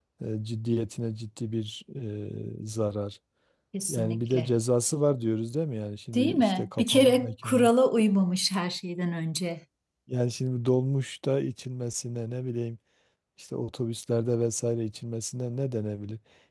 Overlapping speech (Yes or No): Yes